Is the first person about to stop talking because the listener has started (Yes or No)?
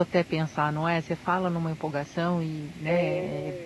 Yes